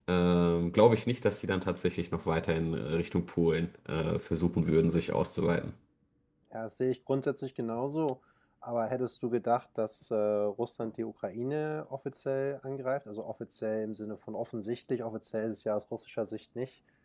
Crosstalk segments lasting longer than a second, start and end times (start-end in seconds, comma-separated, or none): none